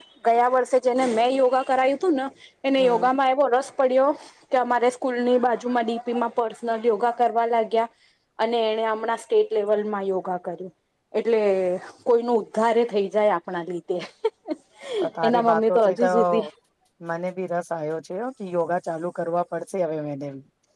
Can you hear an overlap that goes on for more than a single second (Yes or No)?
Yes